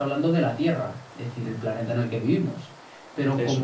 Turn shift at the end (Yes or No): No